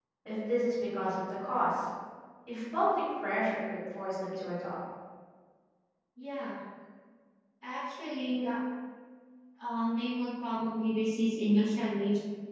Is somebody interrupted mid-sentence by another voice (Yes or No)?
No